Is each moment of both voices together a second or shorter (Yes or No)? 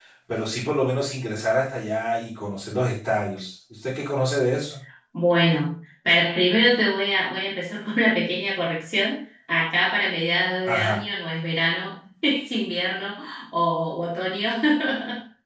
Yes